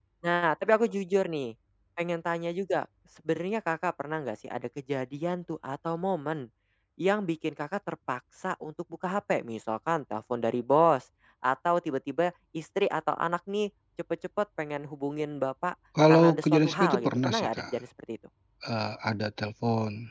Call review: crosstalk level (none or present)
present